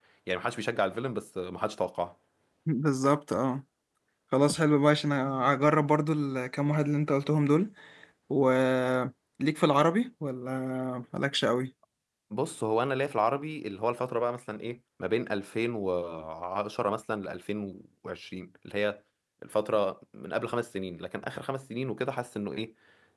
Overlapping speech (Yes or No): No